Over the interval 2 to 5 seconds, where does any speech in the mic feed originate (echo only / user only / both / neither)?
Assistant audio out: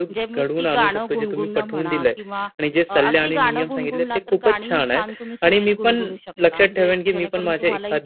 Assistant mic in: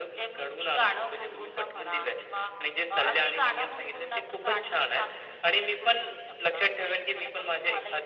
echo only